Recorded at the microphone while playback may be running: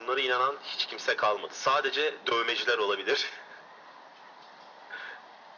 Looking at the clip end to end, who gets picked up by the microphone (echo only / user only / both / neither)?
echo only